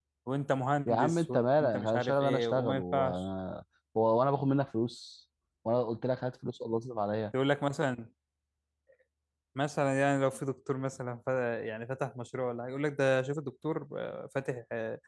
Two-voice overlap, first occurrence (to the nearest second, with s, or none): 1 s